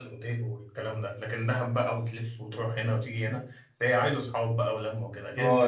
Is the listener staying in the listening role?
No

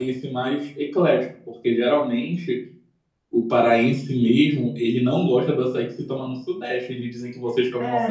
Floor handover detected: Yes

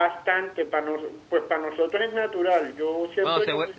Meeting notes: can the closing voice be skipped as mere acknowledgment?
No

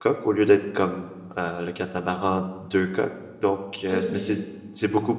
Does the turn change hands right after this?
No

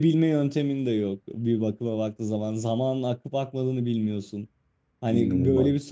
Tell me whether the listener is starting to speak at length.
No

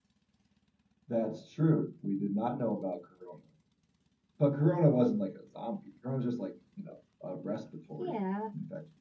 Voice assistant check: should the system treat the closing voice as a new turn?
Yes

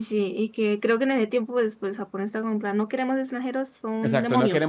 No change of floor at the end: No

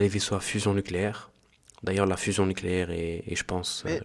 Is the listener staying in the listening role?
No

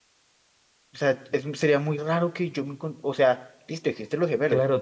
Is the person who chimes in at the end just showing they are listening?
No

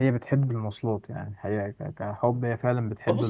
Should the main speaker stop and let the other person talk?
Yes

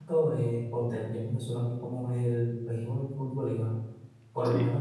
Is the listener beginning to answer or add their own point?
No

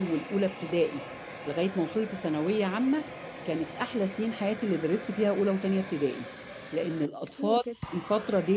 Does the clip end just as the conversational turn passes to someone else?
No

